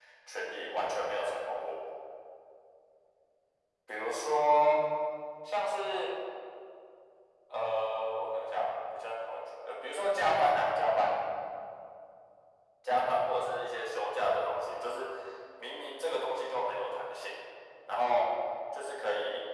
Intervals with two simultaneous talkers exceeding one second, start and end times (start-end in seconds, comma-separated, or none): none